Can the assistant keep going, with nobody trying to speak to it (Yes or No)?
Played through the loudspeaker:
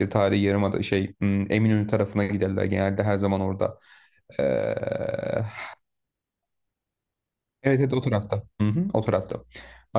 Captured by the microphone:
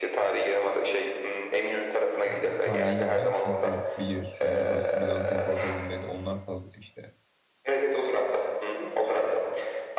No